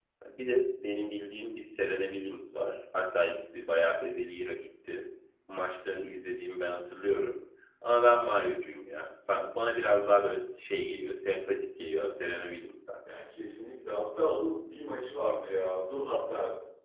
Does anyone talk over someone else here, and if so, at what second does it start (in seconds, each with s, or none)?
none